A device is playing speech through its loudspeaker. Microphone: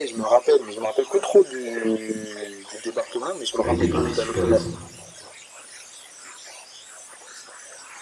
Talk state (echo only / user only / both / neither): both